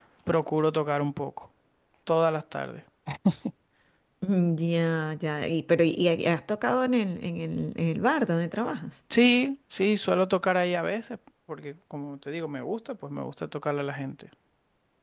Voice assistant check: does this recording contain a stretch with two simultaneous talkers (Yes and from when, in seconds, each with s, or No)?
No